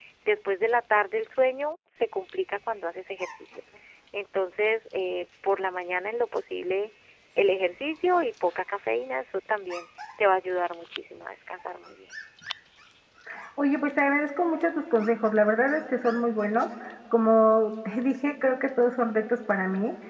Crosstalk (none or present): none